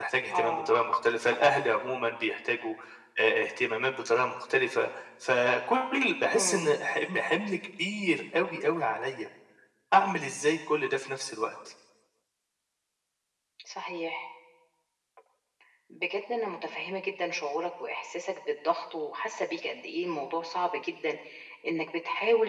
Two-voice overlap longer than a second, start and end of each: none

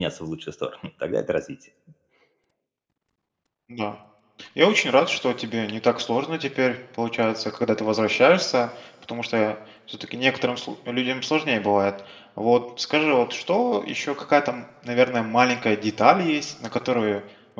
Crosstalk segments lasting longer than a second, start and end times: none

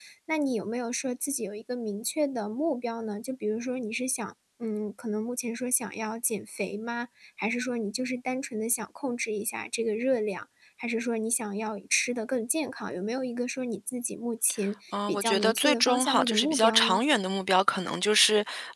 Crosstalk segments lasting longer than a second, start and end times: 15.1-17.0

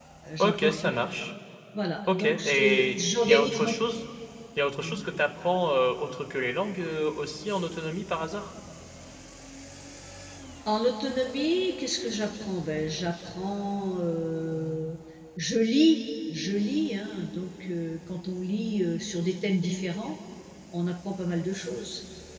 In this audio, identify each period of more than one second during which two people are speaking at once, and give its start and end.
2.1-3.7

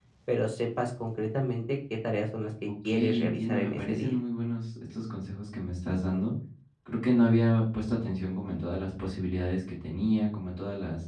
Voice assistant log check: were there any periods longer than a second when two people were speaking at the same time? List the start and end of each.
2.8-4.1

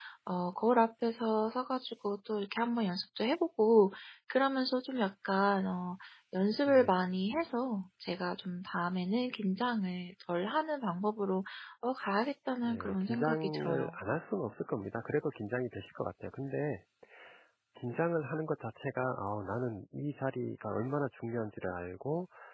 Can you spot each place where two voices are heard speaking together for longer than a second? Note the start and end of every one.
12.6-13.9

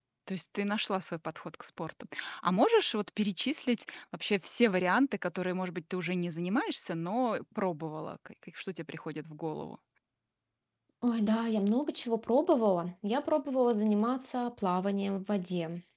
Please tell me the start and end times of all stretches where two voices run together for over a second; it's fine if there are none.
none

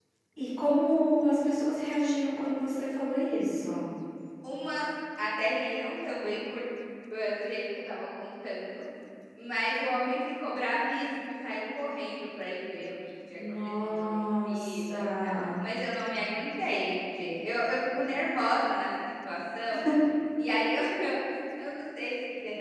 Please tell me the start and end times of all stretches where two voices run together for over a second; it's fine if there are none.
13.3-15.6

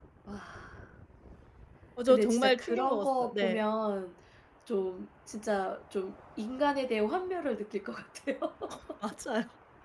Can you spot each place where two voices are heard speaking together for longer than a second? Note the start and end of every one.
2.1-3.6

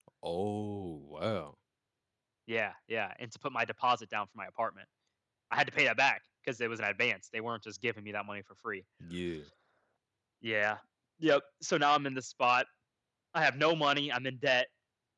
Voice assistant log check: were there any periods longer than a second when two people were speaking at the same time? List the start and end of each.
none

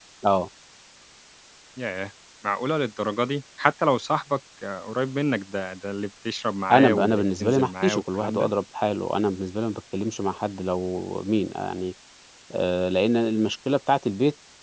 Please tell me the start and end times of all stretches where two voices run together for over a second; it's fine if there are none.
6.7-8.5

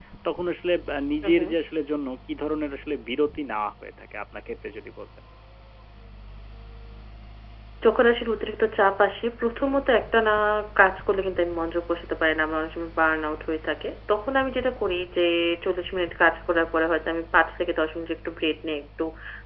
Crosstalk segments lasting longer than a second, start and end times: none

